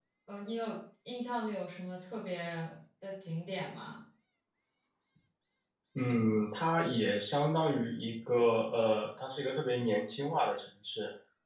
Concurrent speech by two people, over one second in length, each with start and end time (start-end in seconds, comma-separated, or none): none